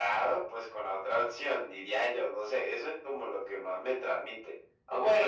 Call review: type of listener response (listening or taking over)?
listening